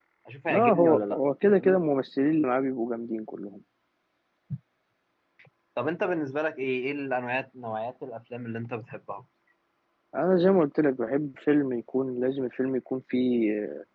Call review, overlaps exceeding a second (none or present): present